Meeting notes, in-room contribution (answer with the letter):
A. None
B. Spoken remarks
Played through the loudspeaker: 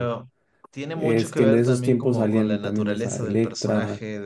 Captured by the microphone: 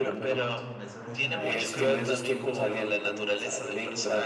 B